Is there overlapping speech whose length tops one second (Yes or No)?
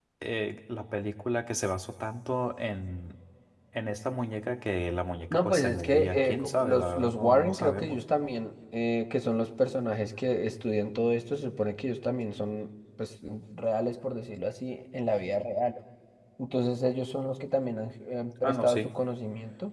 Yes